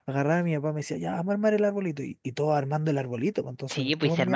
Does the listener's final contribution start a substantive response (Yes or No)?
Yes